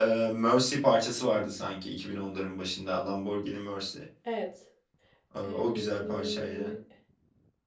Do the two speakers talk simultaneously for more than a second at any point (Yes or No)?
Yes